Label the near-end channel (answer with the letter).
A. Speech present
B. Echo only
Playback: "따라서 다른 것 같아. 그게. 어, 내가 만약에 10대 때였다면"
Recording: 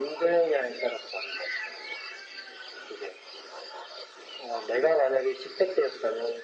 B